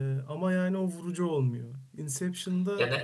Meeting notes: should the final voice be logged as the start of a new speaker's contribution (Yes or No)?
No